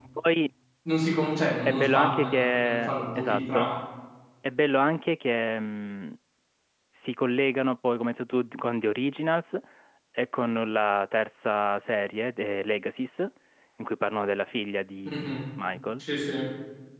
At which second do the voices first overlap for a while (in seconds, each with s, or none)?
1.7 s